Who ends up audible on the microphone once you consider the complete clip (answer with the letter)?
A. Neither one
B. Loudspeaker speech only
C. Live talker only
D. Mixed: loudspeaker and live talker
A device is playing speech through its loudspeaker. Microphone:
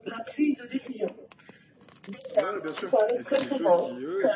D